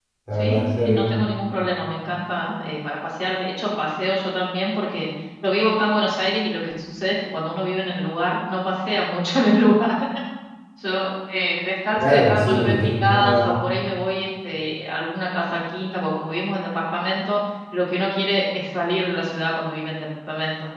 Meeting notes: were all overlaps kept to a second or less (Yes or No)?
No